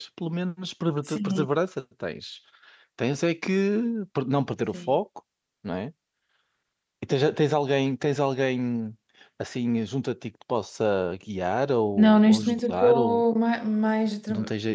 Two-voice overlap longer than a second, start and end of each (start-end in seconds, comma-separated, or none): 11.9-13.2